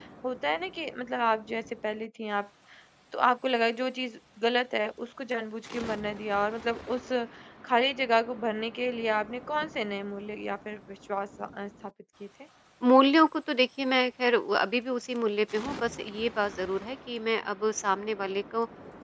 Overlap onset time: none

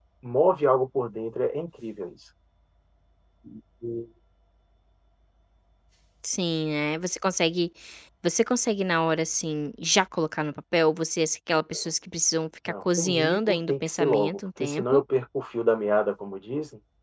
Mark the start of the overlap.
12.7 s

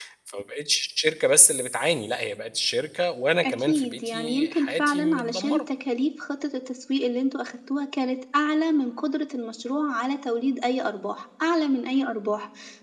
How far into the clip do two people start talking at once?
3.4 s

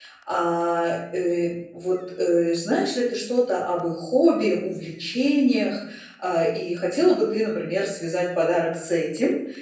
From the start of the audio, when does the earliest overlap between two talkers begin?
none

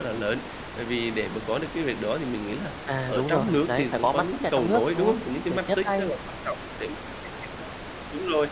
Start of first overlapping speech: 2.9 s

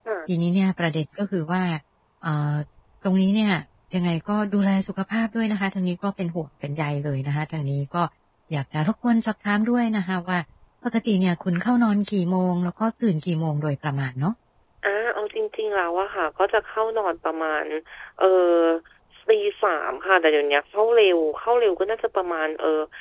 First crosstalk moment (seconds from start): none

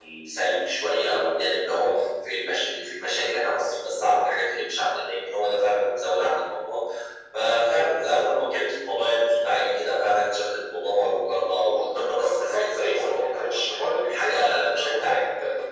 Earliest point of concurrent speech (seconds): 11.7 s

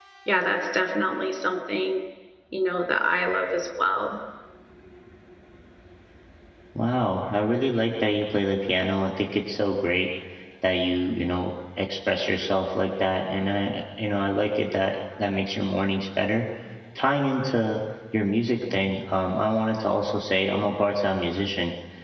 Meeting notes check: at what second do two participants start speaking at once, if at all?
none

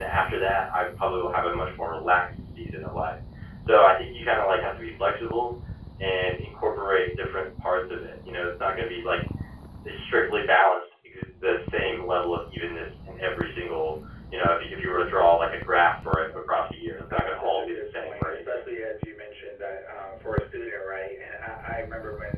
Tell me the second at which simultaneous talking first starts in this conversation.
17.1 s

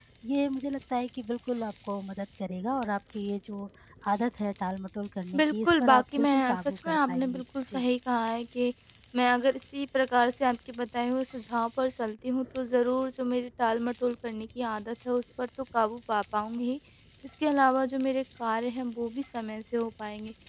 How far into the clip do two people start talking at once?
5.3 s

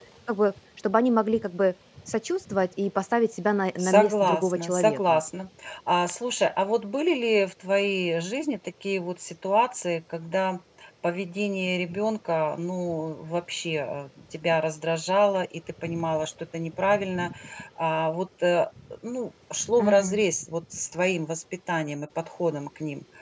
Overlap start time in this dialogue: 3.8 s

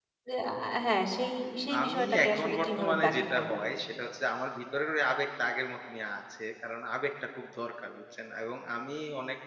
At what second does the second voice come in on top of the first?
1.7 s

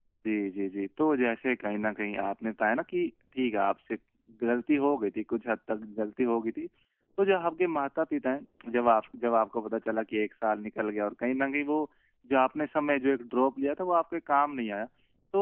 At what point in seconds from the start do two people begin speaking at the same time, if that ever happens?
none

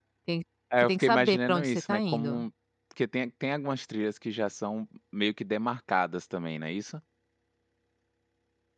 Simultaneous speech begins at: 0.8 s

